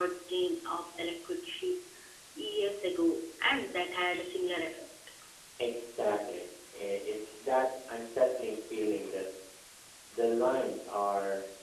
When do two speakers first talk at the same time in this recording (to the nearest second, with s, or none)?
none